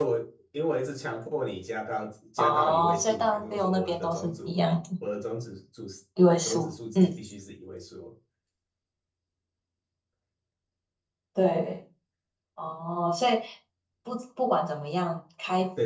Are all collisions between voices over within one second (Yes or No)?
No